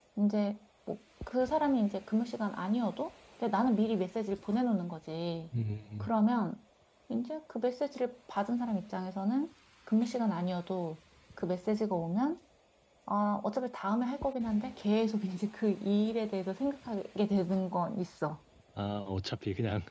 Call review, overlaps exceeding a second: none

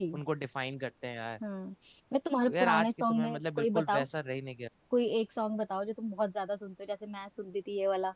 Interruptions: present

